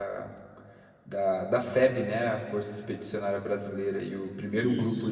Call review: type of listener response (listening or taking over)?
listening